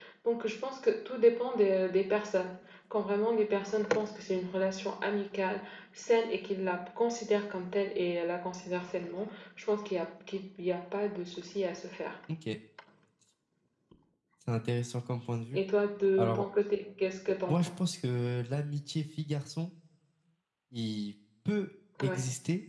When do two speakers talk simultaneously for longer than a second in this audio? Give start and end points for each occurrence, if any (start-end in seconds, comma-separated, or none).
none